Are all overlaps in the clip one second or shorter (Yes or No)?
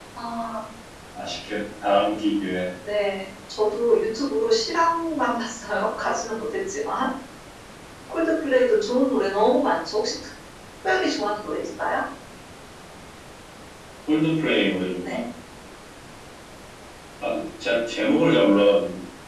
Yes